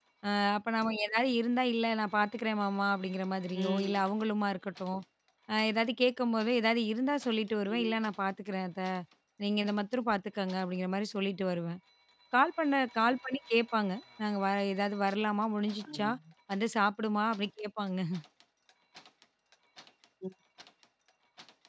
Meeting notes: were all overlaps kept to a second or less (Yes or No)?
Yes